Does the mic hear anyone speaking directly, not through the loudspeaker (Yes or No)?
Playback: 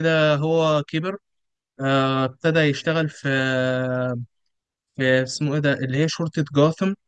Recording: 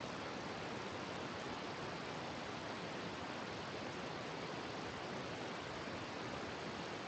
No